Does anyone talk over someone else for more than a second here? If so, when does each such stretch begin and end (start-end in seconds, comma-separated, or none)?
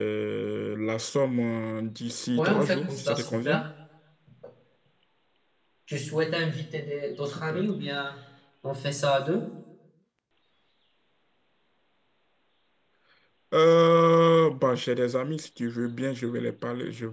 2.4-3.6